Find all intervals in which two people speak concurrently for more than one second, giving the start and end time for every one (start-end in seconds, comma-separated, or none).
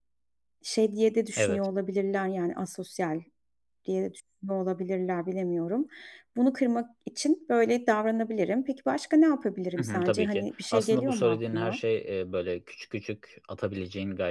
9.8-11.8